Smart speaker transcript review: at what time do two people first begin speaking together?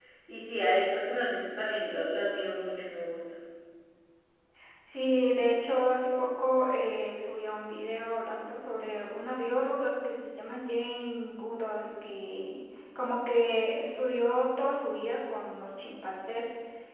none

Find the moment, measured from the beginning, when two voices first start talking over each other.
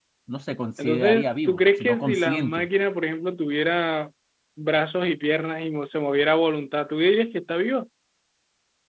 0.8 s

